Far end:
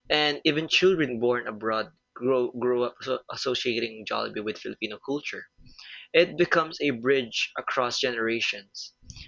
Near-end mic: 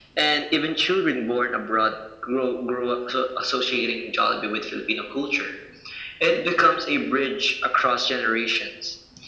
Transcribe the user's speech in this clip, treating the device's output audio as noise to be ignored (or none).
none